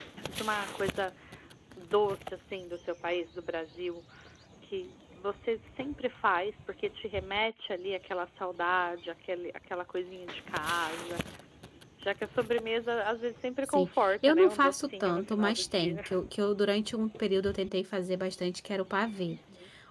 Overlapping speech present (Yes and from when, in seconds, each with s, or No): Yes, from 13.6 s